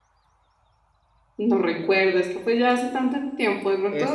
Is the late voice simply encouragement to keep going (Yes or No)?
No